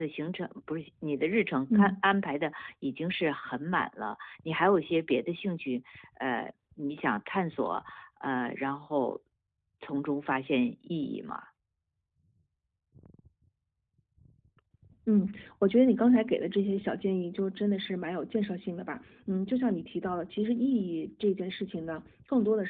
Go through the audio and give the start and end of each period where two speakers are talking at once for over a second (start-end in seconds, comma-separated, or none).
none